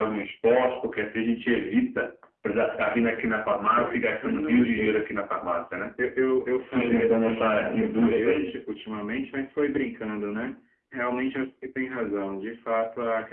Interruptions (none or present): present